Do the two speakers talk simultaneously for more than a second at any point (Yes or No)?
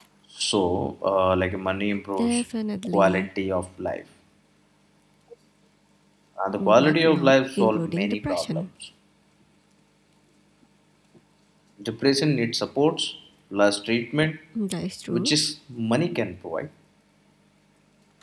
Yes